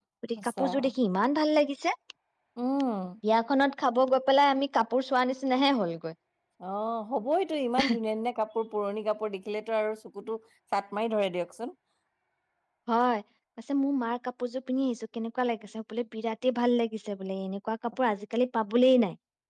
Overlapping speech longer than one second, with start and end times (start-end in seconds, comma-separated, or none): none